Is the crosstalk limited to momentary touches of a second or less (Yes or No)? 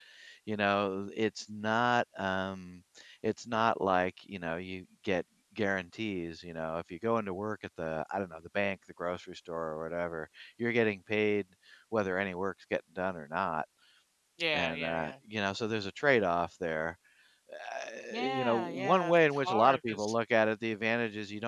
No